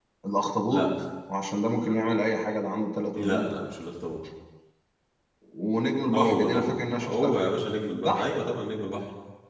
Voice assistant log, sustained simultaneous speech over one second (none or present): present